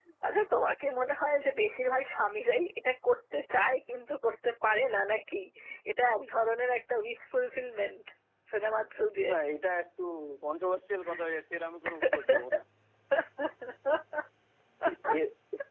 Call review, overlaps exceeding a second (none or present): none